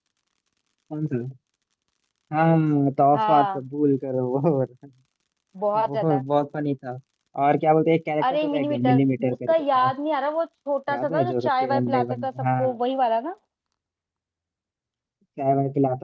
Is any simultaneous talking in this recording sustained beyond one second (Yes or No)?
Yes